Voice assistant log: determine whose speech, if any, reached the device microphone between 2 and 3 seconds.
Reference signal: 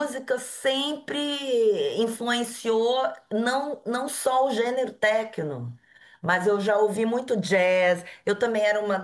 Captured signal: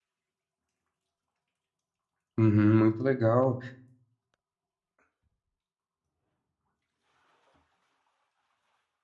user only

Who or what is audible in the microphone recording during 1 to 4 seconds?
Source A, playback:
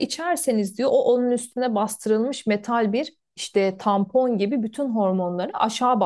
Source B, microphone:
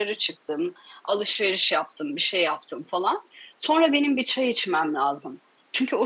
user only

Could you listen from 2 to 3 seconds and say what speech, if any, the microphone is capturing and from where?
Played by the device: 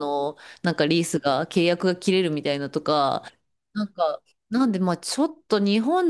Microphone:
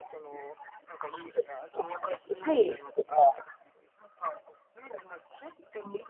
both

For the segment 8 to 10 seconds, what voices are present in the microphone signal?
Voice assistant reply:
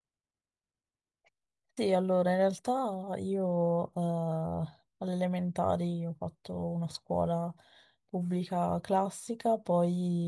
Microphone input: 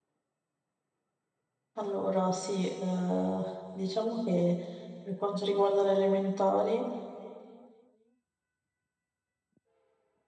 neither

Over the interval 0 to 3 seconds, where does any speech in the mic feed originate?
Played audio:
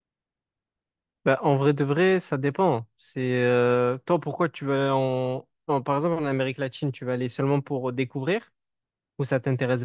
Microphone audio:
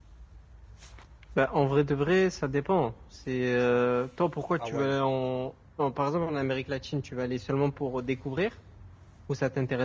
echo only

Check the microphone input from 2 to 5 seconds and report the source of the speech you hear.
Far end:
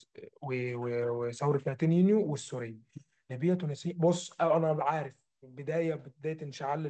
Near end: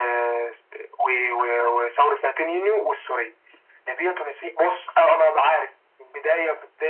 echo only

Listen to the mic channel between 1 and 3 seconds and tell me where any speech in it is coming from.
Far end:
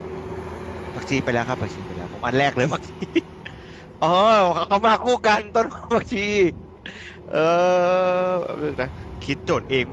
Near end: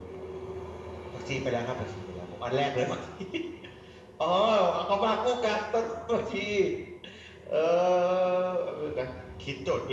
echo only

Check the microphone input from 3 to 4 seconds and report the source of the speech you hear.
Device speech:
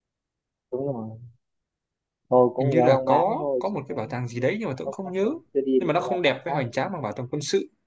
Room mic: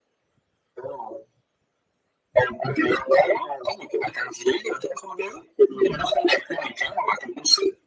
echo only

